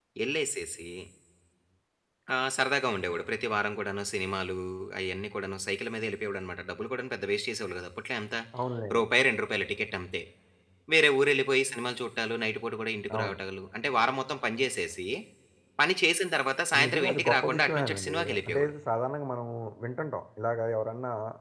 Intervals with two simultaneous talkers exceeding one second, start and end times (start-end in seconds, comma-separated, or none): 16.9-18.7